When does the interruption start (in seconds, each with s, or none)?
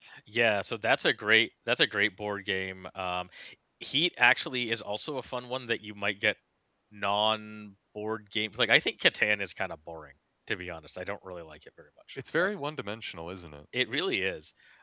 none